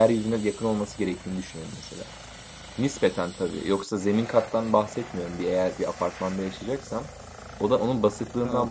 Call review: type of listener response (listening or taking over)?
listening